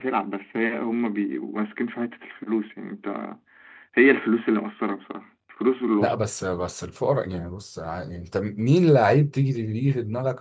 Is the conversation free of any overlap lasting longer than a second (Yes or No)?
Yes